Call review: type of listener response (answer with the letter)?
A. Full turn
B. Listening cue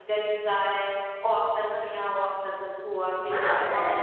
B